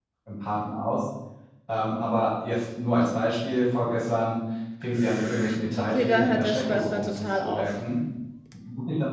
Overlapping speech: Yes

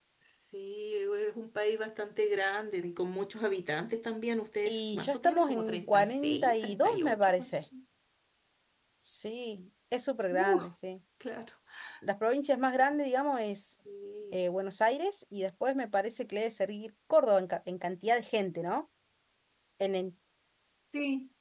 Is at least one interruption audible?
Yes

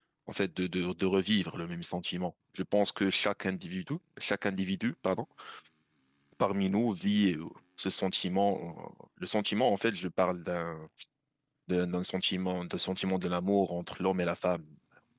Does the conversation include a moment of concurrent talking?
No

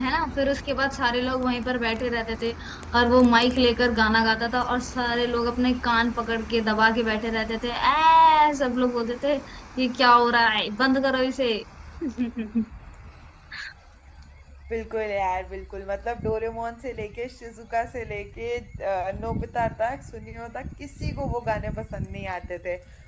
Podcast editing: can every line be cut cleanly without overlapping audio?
Yes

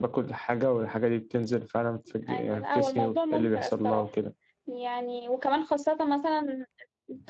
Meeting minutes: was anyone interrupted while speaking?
Yes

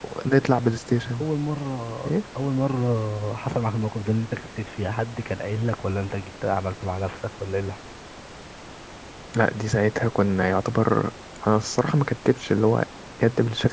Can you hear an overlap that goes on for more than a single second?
No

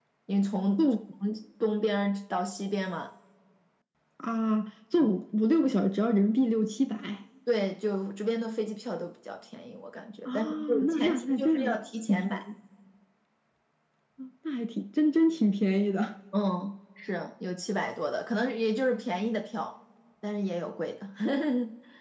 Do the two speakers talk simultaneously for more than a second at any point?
Yes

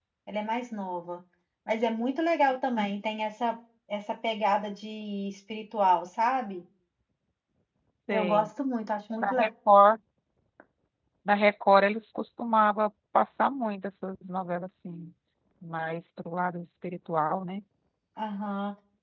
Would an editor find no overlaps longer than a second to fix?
Yes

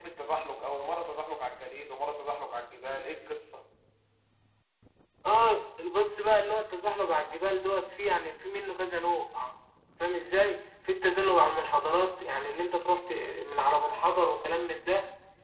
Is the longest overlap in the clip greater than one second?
No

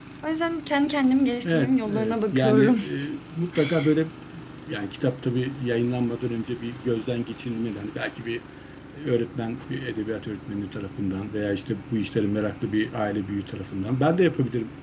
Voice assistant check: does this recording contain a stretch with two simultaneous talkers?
Yes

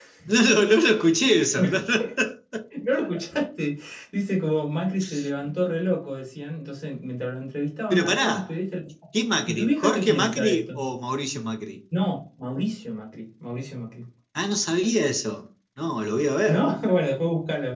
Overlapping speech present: Yes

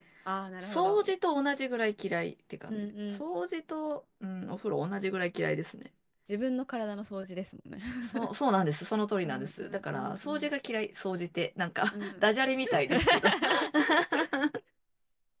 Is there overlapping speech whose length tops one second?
Yes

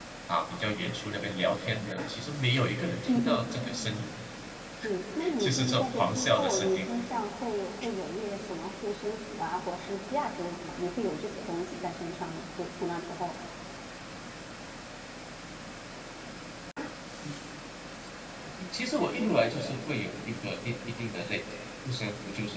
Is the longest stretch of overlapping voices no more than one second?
No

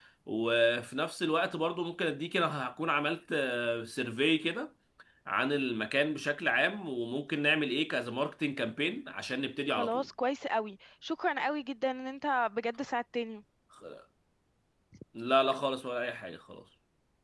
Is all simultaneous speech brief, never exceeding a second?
Yes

